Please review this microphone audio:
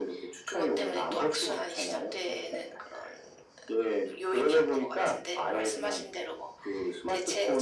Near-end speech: none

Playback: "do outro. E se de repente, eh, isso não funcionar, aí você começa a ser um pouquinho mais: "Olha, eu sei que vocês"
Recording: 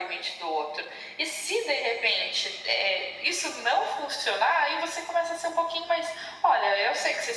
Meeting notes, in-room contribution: none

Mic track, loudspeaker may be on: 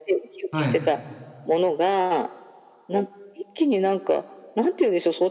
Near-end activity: present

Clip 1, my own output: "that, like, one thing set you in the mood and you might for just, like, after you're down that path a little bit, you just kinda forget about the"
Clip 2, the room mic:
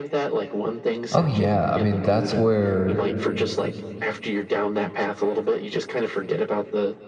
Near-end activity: present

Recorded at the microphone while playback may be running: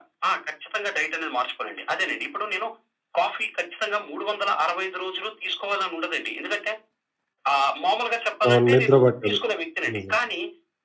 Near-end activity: present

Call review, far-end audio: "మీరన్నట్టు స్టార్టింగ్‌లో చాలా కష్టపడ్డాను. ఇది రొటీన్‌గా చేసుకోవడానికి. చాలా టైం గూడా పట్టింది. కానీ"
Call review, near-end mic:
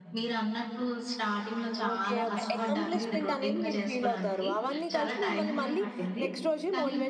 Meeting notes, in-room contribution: present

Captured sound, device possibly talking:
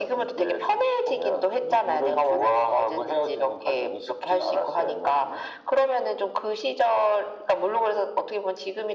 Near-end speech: none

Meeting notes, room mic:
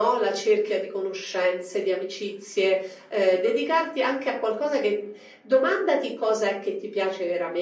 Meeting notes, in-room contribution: none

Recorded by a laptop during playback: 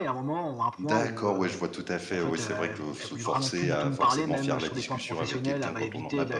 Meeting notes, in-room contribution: present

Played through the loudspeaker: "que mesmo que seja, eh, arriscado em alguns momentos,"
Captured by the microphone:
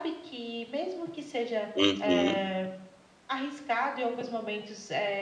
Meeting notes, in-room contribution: present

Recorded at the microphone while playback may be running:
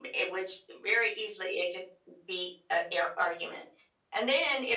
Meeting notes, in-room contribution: none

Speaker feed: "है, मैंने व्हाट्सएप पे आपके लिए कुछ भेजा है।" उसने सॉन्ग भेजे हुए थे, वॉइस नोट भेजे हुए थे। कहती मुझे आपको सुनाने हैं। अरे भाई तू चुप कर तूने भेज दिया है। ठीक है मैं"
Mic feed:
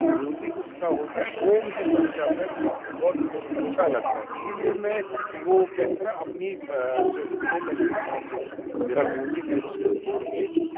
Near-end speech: present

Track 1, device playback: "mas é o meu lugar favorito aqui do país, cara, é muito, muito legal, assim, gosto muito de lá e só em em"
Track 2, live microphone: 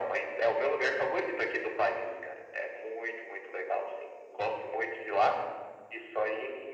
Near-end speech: none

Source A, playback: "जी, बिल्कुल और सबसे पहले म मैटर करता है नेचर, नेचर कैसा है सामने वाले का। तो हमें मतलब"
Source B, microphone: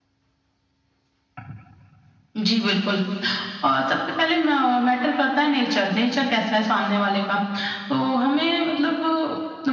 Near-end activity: none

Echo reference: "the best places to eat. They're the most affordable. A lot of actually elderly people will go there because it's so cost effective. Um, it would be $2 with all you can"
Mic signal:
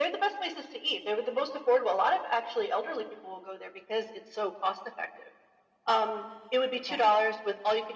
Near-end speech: present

